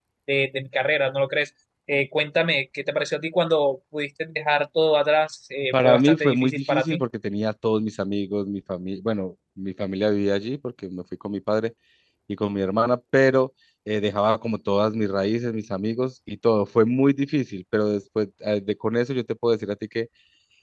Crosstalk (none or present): present